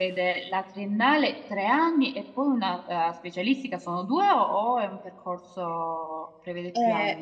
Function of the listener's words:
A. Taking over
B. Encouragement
A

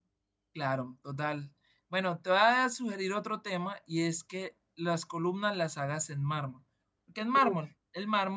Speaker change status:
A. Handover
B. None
B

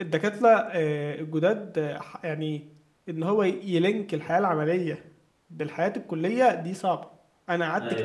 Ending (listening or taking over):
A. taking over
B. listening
B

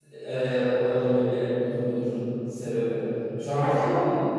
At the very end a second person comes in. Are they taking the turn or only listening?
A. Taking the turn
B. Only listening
B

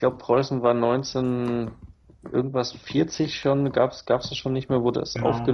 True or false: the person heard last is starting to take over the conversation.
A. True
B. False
B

